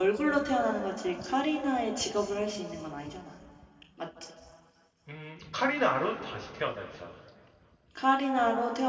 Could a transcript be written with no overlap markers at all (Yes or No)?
Yes